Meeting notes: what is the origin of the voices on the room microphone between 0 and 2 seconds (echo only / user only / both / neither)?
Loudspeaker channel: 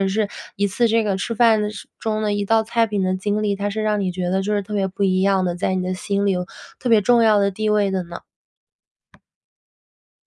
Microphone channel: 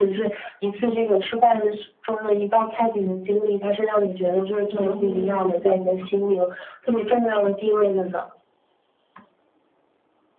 echo only